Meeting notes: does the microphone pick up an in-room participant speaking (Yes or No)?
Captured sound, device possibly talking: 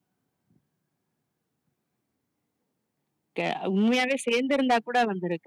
Yes